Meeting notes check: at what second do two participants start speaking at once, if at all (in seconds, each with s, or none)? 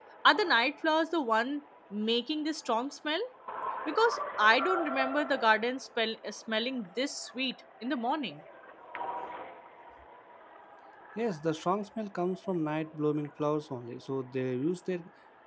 none